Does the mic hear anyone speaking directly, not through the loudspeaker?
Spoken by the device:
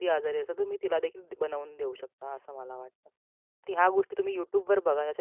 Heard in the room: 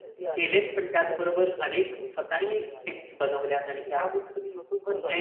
Yes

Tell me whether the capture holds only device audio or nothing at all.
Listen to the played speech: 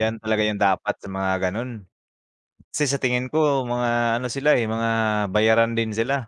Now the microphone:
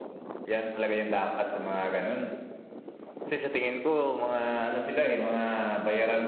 Yes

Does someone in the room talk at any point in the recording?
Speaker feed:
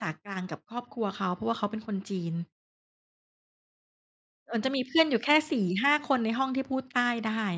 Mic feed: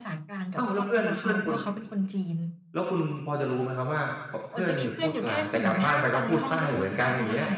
Yes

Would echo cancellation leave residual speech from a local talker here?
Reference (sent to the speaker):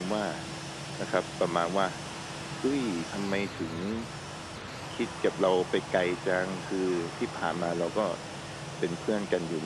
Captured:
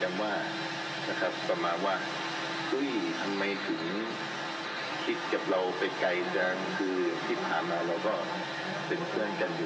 Yes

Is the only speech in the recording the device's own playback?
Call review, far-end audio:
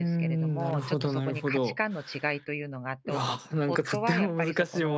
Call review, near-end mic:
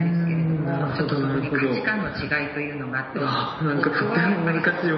Yes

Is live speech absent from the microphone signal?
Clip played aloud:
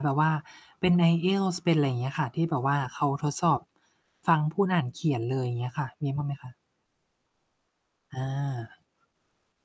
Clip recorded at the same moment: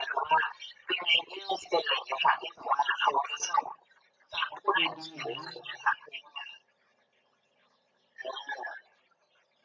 No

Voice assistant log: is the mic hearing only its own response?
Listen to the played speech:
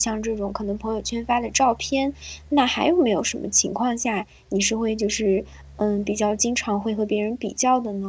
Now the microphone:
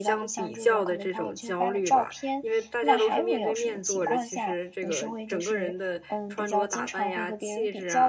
No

